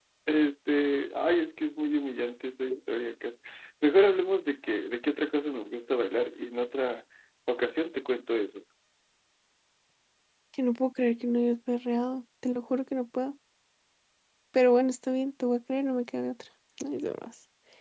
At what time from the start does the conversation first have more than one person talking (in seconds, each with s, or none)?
none